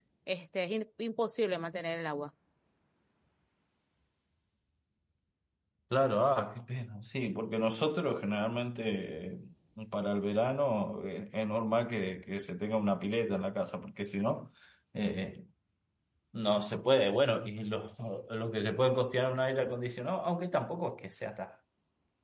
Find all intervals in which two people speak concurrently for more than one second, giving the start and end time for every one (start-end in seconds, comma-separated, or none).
none